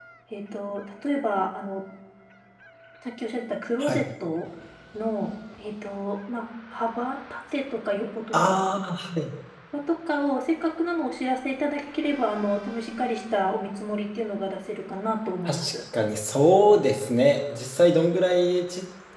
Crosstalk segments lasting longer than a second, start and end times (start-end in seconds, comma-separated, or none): none